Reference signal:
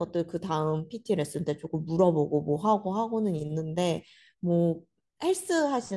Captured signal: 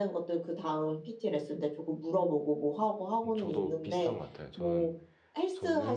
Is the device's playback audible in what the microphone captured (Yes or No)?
Yes